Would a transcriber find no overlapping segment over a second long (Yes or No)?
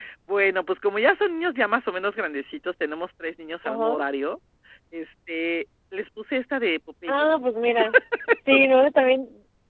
Yes